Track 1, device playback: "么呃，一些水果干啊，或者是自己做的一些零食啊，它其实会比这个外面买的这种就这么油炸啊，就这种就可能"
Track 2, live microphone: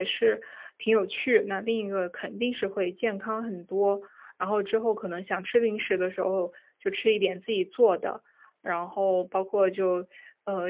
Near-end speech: present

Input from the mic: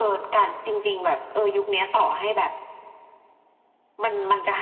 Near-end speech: none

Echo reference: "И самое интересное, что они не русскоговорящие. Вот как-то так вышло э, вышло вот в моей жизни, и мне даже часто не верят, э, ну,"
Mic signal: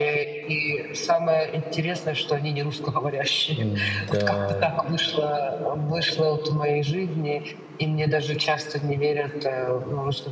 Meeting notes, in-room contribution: present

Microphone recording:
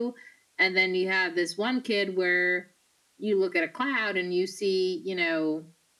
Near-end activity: none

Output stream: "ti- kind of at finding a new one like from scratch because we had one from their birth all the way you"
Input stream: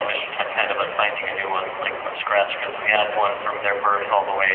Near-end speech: none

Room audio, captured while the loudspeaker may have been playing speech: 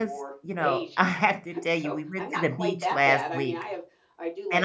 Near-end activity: present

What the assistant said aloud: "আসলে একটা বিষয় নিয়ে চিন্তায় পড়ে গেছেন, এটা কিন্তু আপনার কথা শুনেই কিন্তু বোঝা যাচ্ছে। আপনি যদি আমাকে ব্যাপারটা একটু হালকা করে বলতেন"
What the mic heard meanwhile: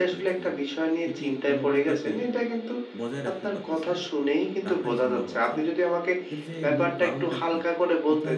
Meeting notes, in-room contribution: present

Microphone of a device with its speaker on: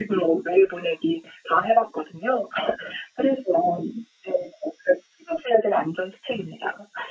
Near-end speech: none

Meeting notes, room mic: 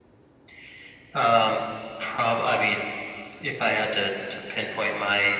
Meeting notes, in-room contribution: none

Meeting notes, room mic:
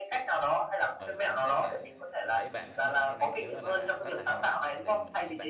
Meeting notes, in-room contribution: present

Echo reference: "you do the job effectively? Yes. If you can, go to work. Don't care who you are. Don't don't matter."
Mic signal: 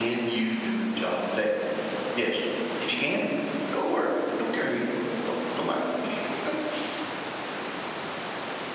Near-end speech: none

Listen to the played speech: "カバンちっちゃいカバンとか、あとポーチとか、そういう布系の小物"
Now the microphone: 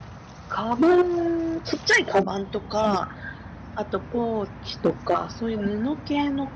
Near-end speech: none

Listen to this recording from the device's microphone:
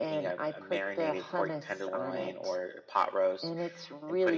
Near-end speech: none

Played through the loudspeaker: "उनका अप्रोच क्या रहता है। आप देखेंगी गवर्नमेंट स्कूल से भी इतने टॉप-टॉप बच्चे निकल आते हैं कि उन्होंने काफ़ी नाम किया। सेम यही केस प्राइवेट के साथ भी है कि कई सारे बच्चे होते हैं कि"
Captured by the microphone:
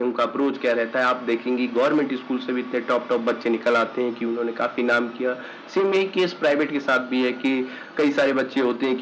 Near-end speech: none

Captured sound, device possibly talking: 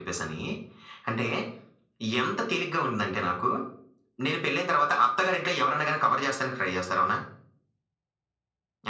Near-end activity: none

